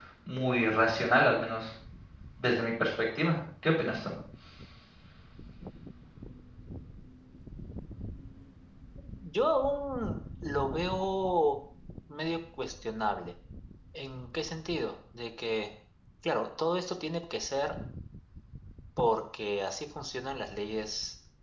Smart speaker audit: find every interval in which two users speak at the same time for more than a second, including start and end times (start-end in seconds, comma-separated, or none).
none